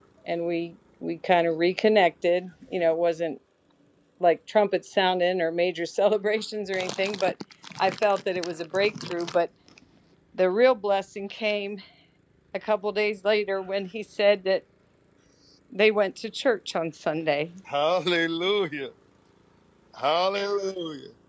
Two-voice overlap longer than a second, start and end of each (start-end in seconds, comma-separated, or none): none